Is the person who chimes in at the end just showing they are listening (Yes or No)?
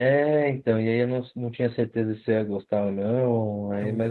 Yes